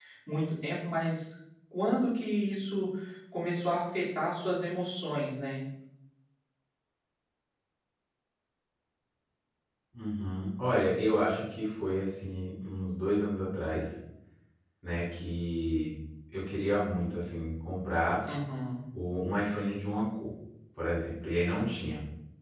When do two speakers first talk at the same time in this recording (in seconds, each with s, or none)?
none